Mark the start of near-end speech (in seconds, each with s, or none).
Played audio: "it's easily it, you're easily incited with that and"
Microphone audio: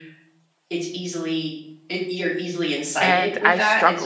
3.0 s